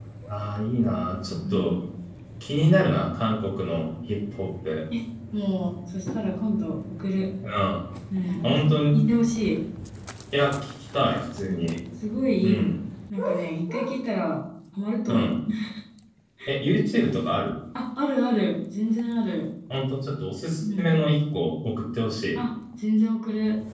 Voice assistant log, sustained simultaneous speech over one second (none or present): none